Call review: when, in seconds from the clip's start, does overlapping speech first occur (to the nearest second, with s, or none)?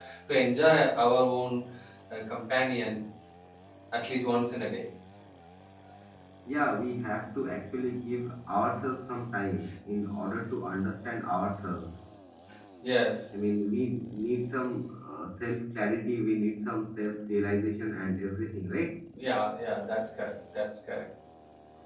none